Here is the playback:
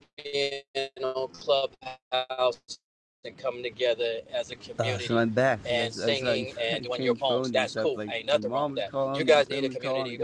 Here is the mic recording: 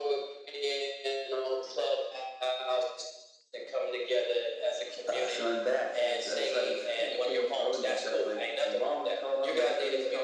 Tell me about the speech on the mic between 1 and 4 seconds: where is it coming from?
echo only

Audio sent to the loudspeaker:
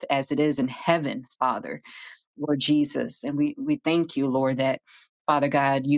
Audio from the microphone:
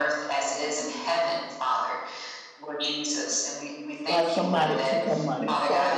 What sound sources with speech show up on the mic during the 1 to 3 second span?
echo only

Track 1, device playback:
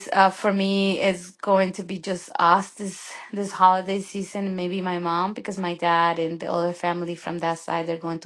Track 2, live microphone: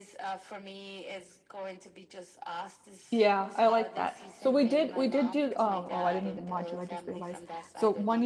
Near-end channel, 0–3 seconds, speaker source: echo only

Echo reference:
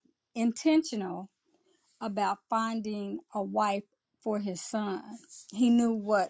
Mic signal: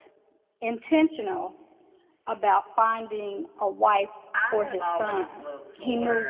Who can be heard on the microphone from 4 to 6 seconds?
both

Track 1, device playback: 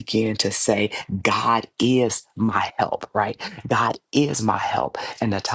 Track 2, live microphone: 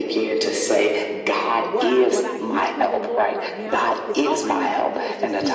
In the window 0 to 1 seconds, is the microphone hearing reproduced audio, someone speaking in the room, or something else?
echo only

